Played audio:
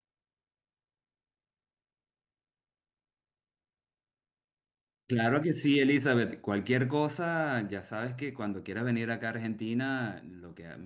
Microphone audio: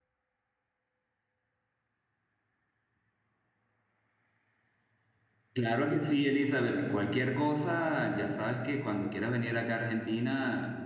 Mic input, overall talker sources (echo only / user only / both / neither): echo only